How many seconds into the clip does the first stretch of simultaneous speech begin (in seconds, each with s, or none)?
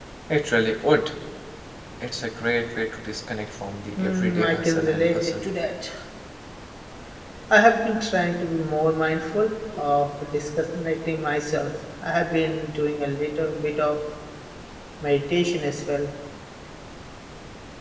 4.0 s